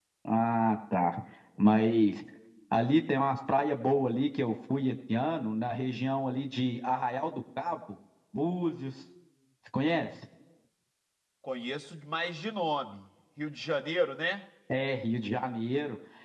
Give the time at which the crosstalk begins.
none

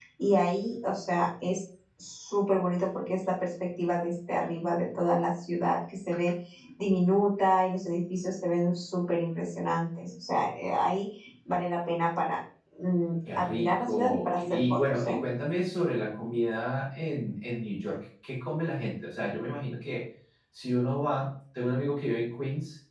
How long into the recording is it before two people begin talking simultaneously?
13.3 s

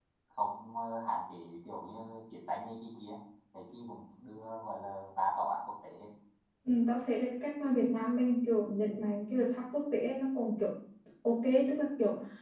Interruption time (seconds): none

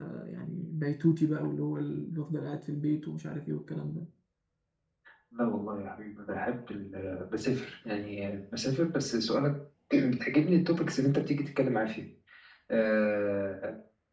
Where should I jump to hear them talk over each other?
none

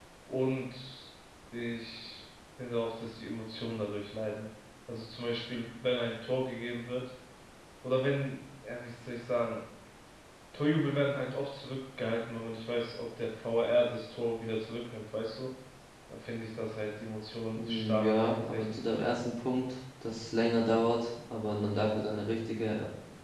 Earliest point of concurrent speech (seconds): 17.6 s

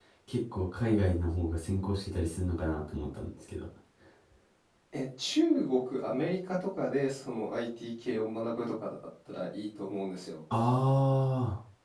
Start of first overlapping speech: none

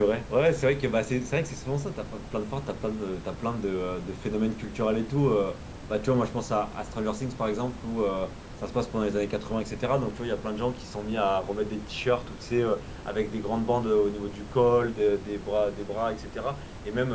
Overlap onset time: none

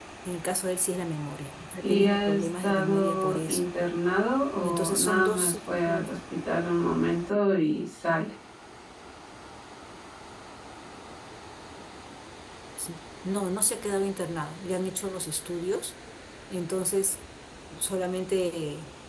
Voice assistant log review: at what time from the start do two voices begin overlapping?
1.8 s

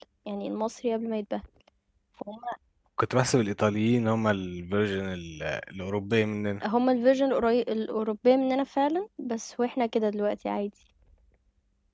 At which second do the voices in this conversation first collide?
none

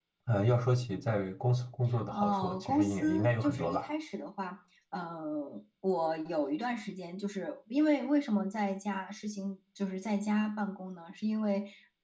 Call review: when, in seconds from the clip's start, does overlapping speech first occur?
2.1 s

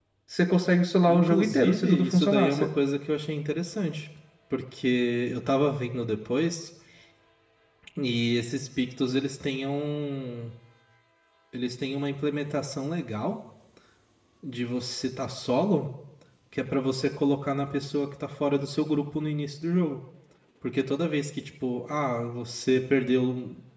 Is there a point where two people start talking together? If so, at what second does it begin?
1.1 s

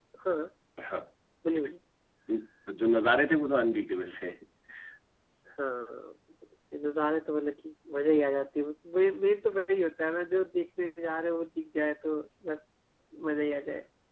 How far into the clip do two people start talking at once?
none

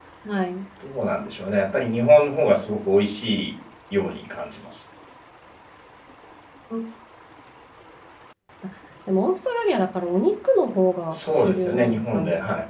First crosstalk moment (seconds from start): 11.1 s

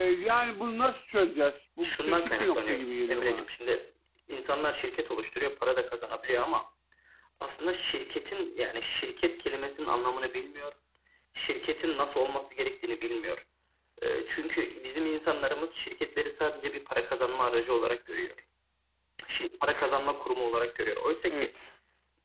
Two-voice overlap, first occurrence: 1.8 s

